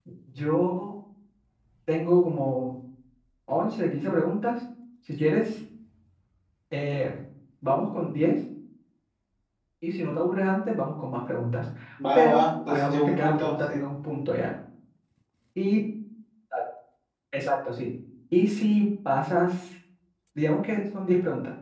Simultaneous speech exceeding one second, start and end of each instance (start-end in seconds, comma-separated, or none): 12.2-13.8